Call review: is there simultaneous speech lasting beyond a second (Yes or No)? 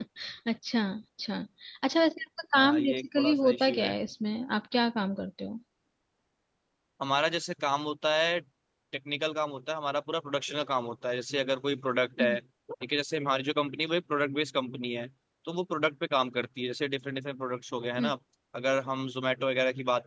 Yes